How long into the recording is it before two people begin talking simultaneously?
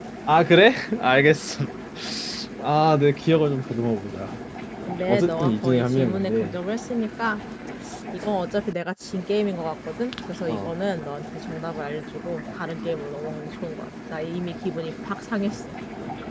5 s

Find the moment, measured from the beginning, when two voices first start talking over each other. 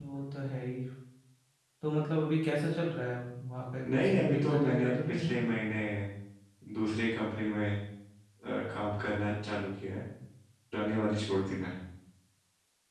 4 s

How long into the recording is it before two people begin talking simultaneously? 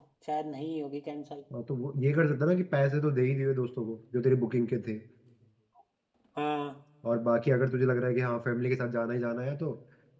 none

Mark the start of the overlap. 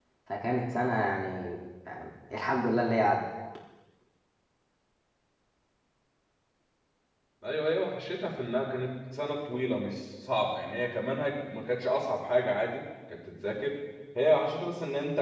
none

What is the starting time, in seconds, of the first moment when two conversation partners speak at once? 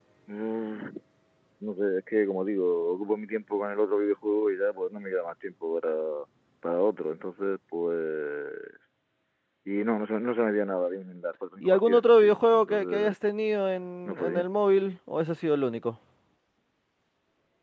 12 s

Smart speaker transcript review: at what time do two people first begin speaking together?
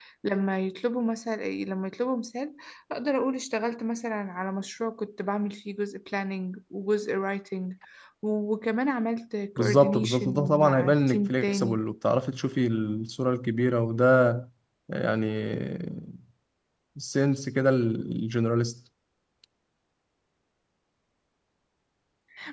10 s

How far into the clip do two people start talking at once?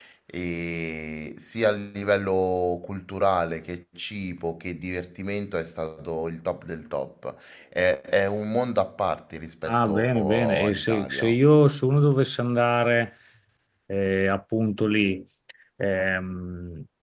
10 s

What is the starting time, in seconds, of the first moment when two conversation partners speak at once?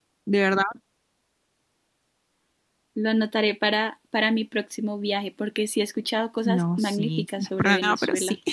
6 s

